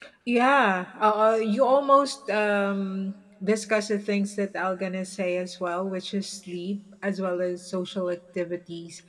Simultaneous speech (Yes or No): No